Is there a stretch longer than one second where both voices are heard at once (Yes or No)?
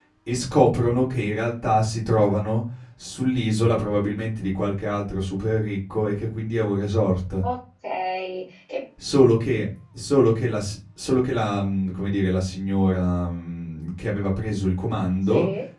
No